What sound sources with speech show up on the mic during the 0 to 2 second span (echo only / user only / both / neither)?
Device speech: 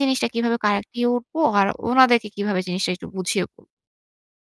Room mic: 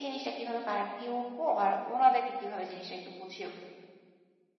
echo only